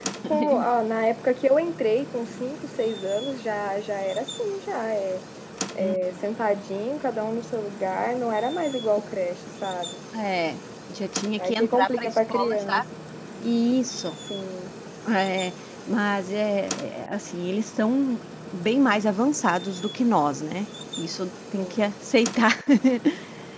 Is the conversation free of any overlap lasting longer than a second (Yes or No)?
No